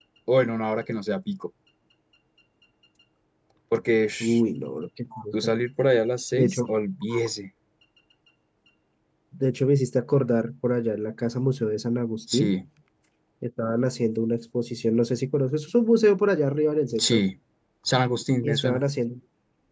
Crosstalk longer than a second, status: none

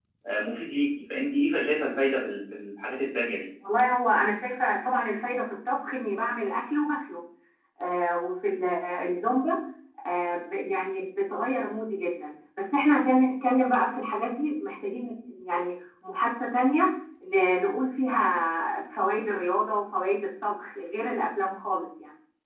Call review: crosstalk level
none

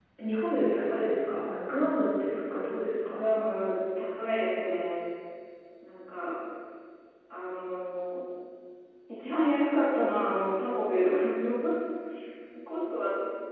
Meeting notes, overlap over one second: none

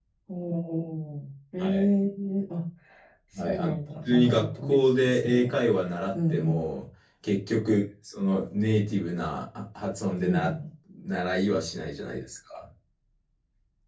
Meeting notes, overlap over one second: present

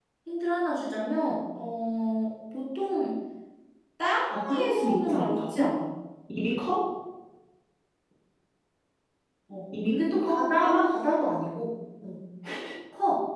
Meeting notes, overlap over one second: present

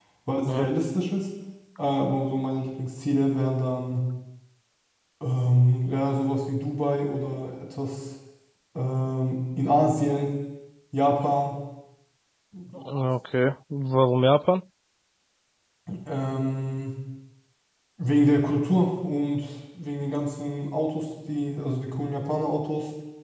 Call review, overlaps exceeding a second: none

